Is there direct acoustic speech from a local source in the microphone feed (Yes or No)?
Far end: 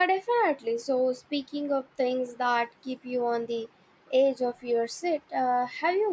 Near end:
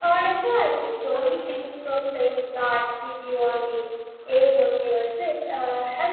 Yes